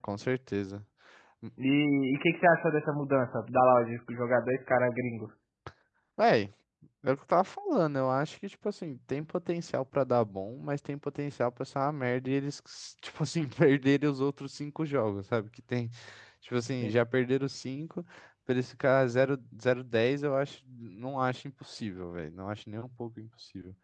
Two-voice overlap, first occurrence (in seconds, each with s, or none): none